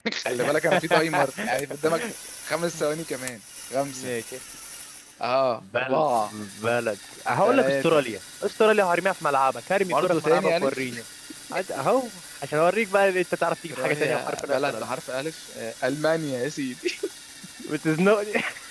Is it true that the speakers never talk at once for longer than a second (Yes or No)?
No